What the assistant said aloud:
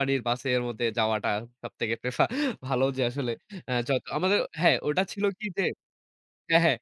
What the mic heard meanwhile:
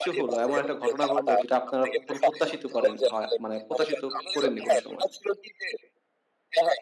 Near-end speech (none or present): present